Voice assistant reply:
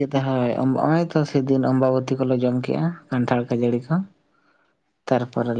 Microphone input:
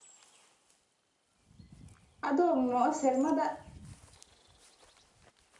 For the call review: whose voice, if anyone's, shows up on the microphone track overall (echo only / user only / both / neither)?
user only